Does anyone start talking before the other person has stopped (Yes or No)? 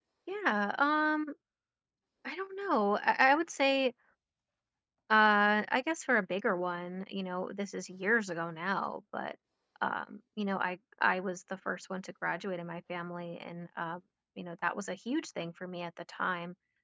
No